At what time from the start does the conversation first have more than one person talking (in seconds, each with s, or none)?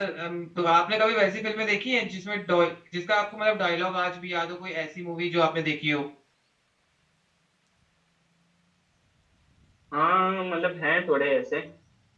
none